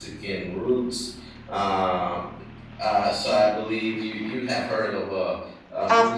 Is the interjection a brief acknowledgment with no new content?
No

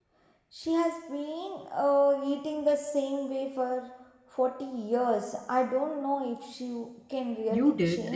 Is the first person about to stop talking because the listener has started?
Yes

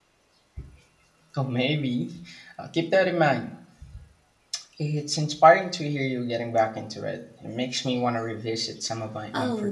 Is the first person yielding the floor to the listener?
Yes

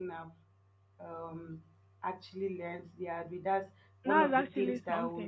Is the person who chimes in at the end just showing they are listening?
No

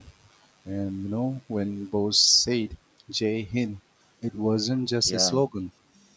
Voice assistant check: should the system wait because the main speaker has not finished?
Yes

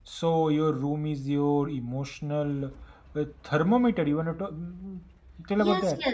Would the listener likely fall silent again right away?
No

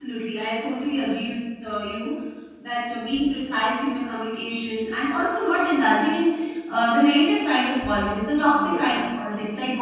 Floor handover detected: No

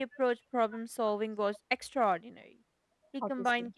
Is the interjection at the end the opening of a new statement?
No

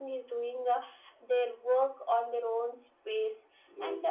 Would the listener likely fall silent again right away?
Yes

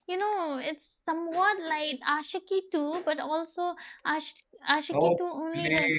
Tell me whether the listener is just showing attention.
No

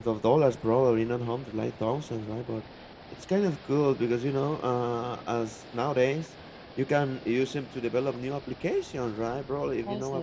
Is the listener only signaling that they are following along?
Yes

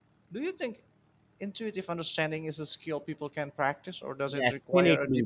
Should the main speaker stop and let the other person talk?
Yes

